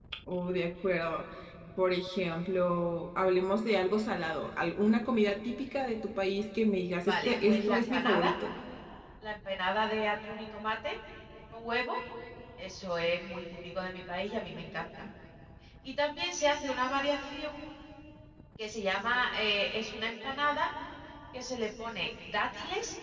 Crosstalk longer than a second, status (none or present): present